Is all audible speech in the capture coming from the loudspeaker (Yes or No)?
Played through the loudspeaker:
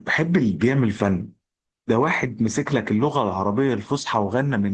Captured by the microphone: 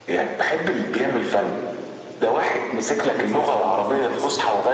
No